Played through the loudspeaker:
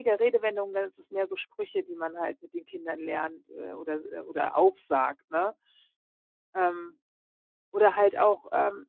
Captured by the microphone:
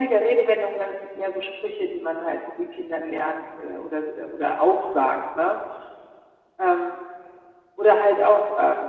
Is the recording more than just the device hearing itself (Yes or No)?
No